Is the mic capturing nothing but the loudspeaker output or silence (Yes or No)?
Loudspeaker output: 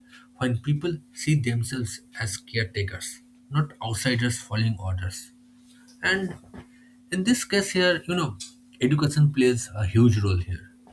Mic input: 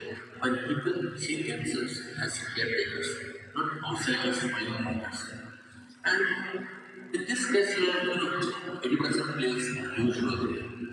Yes